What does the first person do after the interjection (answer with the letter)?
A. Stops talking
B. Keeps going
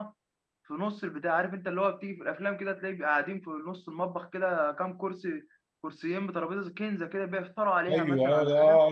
A